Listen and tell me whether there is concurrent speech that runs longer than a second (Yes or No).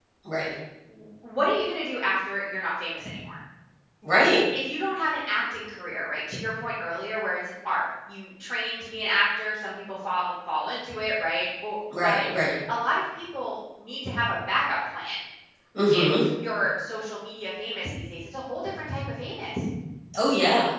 No